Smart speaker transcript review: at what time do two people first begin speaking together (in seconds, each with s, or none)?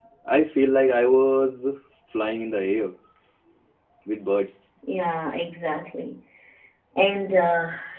none